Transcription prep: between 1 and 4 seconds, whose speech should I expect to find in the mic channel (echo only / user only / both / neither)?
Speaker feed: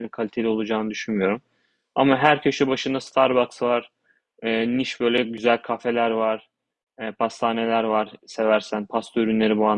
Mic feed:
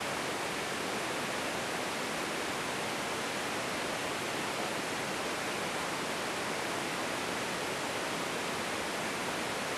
neither